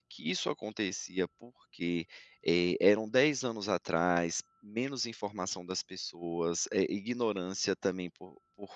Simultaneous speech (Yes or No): No